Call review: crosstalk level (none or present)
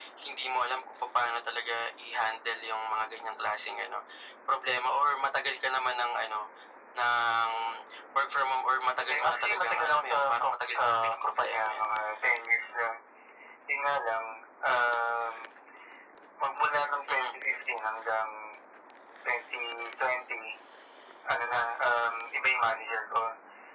present